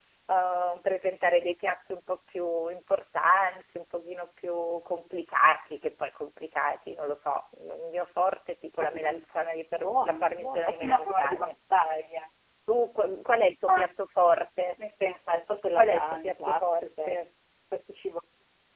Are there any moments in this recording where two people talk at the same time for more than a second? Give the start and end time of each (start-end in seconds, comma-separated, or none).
9.7-11.5, 15.7-17.2